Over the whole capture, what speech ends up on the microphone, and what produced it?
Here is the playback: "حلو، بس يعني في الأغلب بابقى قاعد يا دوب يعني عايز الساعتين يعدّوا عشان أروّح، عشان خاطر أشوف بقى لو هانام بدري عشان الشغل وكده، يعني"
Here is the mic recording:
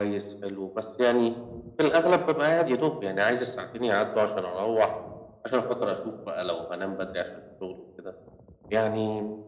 echo only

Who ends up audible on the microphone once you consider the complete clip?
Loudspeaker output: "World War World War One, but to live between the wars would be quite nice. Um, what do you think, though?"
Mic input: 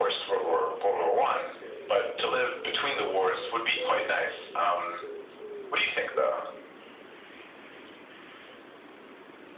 echo only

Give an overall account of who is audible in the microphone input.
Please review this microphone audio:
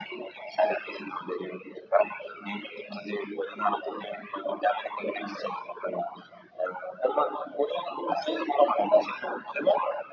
echo only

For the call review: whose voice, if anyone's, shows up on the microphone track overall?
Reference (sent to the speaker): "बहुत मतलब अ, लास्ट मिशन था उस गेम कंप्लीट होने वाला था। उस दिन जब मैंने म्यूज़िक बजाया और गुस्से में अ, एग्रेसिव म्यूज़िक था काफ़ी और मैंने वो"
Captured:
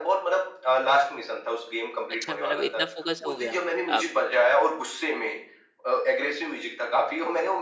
both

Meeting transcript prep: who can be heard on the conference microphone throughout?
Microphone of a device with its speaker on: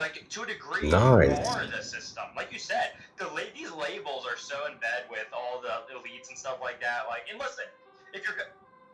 both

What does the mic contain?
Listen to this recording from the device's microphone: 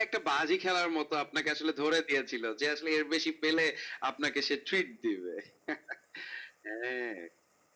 echo only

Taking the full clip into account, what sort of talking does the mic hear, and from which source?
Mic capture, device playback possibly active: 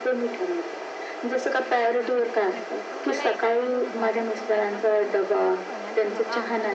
both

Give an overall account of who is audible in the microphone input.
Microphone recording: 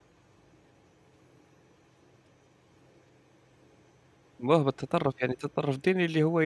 user only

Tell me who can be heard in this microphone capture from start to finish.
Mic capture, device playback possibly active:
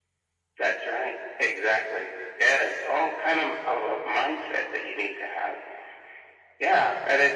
echo only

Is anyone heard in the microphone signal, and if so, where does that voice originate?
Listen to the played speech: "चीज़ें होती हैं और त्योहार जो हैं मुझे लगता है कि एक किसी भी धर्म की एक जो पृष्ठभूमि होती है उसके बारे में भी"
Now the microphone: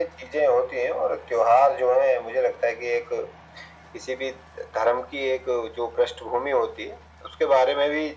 echo only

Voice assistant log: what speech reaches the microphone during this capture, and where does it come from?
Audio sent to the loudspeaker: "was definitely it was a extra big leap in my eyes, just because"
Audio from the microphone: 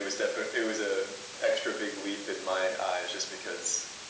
echo only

